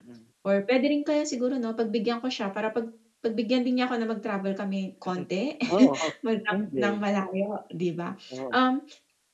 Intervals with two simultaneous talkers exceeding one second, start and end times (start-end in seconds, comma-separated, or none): none